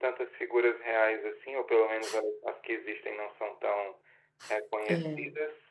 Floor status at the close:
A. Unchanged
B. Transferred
A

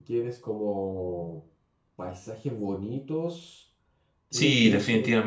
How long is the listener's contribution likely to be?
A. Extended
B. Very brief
A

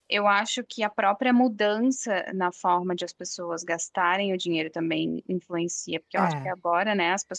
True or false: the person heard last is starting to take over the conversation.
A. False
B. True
A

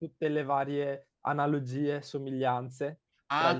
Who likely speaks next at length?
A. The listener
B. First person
A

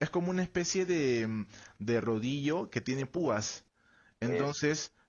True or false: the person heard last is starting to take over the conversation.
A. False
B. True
A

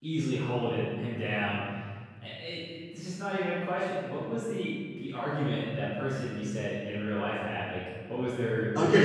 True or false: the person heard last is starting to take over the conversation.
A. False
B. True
B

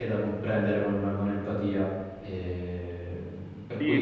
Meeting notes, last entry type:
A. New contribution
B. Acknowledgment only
A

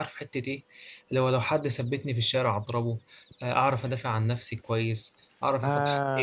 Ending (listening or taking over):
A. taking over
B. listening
B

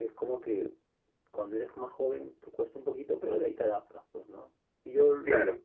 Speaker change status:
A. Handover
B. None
B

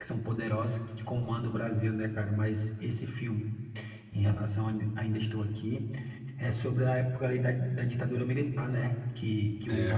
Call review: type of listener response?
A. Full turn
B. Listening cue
B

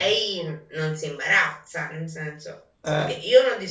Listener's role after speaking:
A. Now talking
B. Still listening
B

